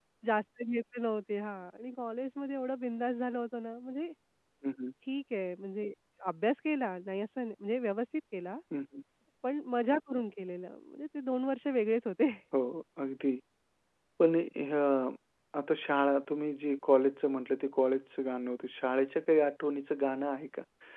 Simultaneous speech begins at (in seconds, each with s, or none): none